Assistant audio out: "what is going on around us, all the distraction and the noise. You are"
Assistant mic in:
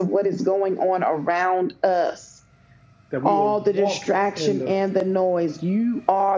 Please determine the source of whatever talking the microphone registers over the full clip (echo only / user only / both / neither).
both